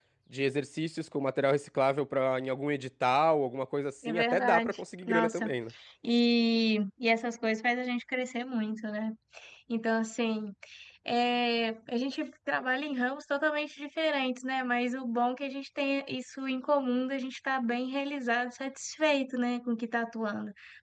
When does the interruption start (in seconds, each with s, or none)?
4.0 s